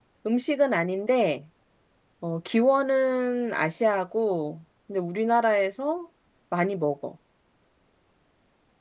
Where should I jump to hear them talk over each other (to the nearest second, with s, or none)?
none